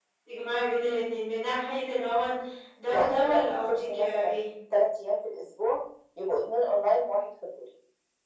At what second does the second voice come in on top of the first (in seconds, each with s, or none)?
2.9 s